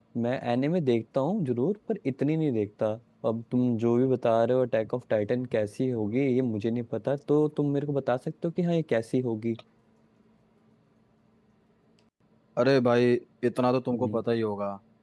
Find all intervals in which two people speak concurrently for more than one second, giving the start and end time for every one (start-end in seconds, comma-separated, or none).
none